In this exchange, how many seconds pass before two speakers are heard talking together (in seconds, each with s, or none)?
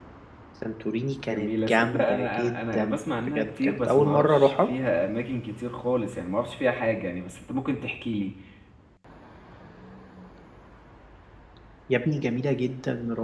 1.3 s